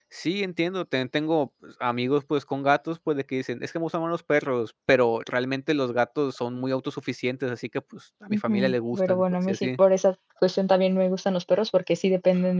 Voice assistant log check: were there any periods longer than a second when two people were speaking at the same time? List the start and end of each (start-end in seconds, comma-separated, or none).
8.3-9.7